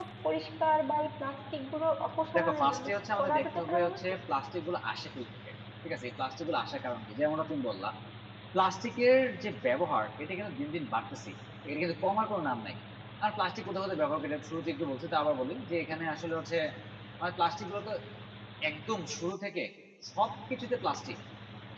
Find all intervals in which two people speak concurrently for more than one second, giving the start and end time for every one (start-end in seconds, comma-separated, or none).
2.4-4.1